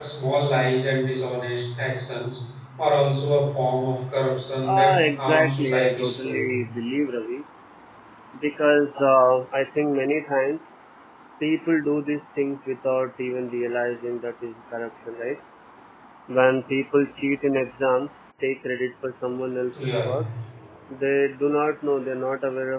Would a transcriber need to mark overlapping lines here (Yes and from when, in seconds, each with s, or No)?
Yes, from 4.6 s